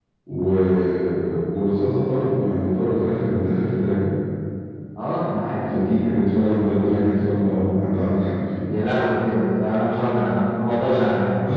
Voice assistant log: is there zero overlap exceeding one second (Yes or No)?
Yes